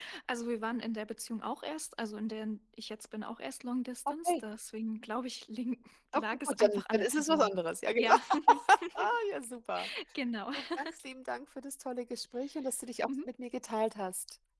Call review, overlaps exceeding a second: present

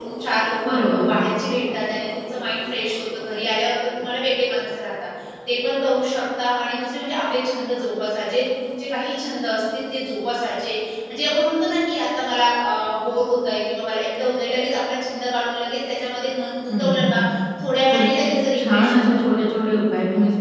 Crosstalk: present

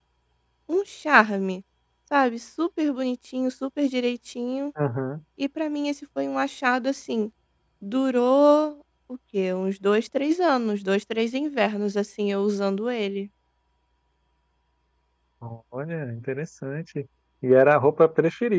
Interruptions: none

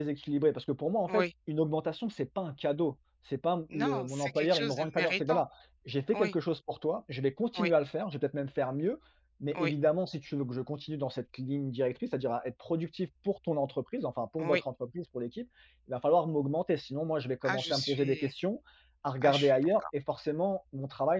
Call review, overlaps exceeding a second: present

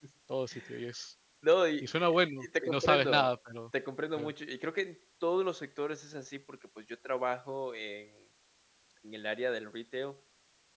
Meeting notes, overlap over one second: present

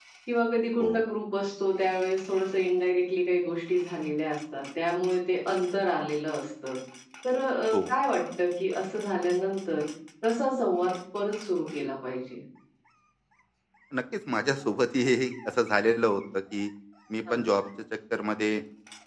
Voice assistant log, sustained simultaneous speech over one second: none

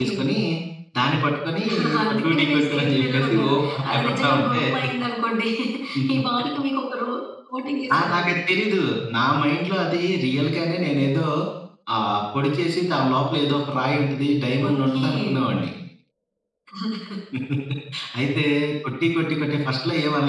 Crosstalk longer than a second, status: present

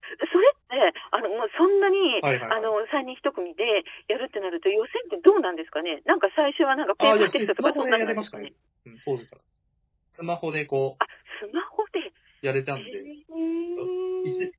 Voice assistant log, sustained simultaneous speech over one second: present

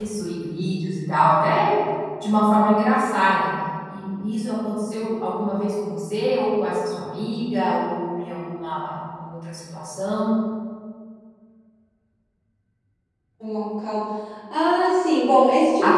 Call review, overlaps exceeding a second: none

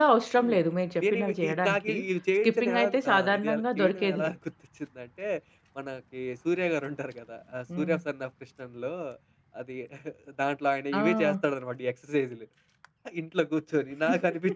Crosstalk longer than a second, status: present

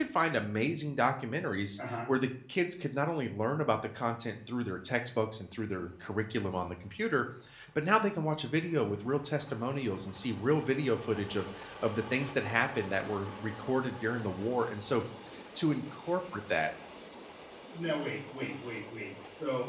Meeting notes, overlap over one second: none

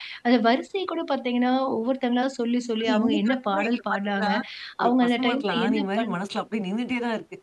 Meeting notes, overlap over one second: present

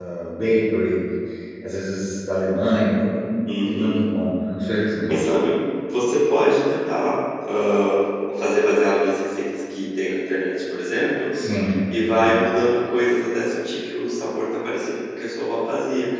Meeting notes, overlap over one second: none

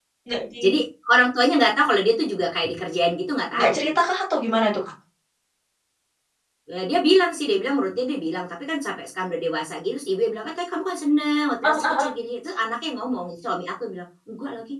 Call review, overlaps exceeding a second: none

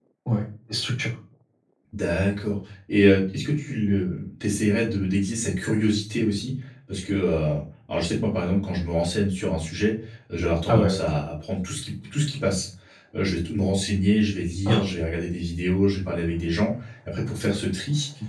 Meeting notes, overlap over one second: none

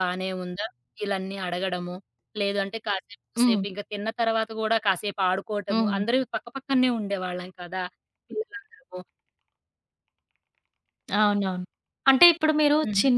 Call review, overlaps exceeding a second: none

